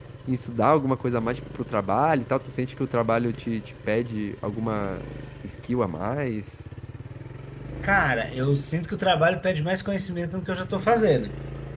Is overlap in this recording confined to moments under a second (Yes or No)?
Yes